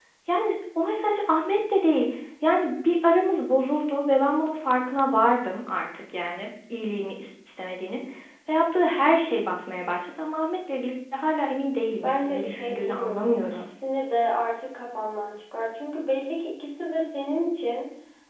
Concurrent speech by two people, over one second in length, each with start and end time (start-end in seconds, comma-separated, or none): 12.0-13.7